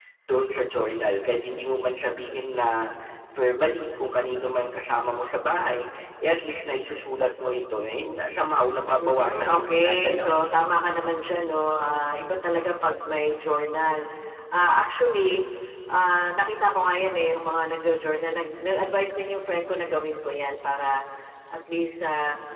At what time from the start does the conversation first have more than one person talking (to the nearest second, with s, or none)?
9 s